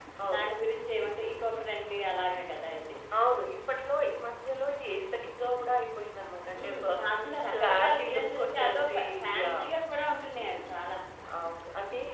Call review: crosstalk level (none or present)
present